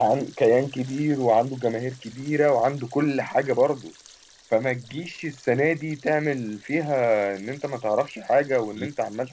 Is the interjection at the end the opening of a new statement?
No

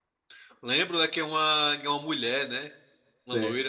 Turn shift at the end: Yes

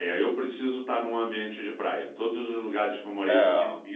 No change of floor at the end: Yes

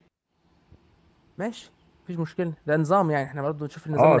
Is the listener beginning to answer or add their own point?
Yes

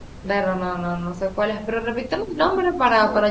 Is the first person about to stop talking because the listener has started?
Yes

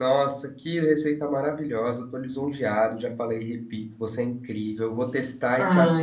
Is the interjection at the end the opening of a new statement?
Yes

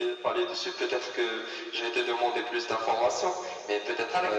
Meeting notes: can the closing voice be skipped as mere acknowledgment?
Yes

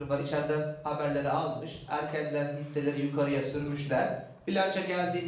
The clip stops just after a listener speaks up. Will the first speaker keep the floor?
Yes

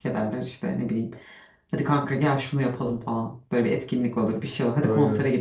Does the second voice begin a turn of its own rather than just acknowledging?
No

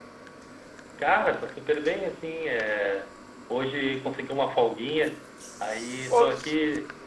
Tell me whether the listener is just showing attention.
Yes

